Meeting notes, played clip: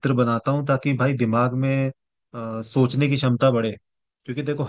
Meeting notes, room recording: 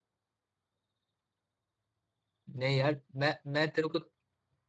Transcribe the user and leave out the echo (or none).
नहीं यार मैं मैं तेरे को